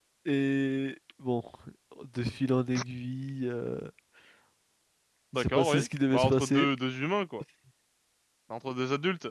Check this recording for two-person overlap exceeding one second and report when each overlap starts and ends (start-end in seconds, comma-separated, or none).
5.3-6.7